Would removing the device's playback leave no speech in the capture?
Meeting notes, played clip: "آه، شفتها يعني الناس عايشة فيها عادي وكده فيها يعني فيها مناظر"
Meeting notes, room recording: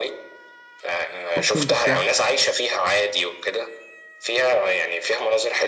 No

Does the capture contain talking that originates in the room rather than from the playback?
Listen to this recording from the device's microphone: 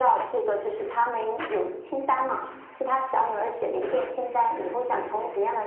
No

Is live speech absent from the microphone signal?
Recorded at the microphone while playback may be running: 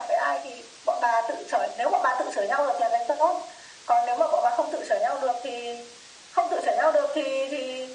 Yes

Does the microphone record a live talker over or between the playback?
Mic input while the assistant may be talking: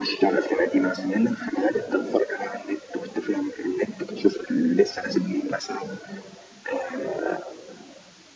No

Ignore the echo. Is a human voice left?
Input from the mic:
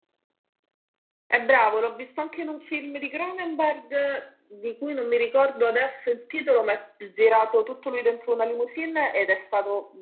Yes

